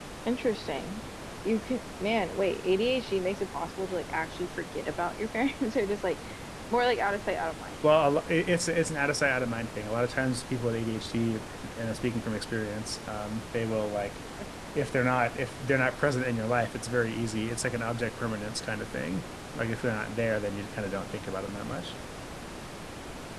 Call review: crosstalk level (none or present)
none